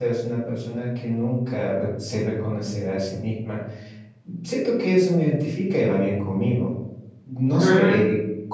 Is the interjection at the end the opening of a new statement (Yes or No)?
No